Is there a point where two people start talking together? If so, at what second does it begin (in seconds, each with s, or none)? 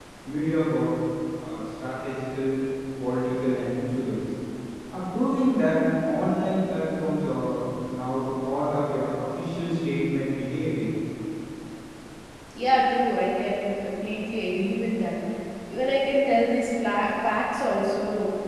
none